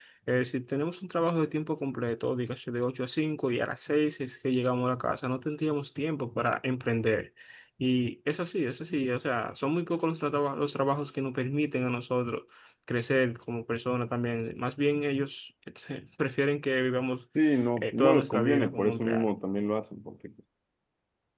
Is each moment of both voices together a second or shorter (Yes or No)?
No